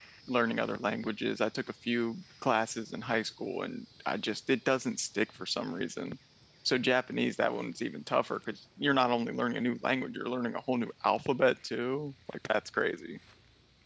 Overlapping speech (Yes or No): No